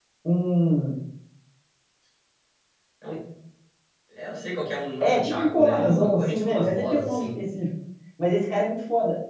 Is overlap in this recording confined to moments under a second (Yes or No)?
No